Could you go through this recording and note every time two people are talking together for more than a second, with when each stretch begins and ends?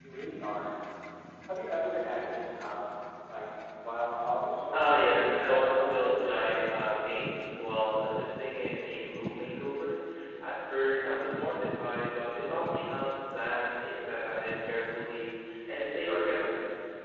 4.7-6.3

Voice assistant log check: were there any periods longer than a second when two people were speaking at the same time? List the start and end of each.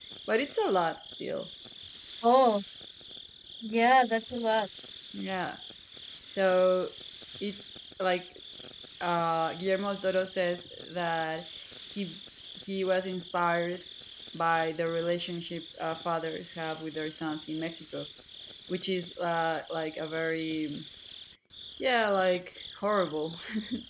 none

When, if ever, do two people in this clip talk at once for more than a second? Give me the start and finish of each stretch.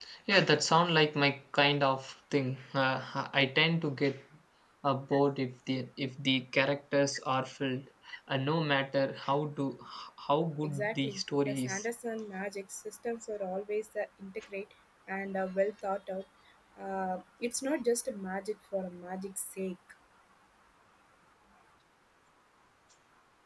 10.6-11.8

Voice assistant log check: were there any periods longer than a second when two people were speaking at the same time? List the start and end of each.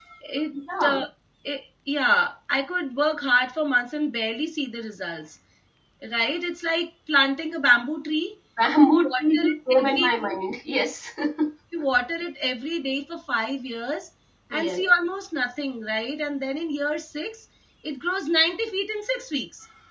8.8-10.3

